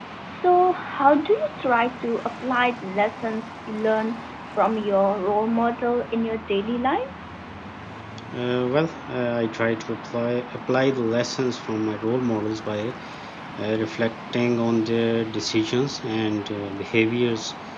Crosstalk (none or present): none